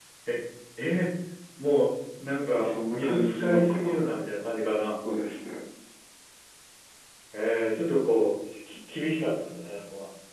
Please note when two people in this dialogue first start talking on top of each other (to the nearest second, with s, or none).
3 s